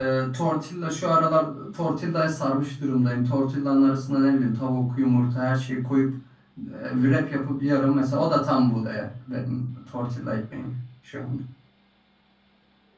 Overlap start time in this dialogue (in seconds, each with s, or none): none